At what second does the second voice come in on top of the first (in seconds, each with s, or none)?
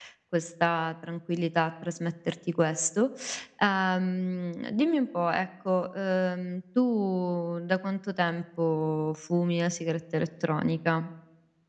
none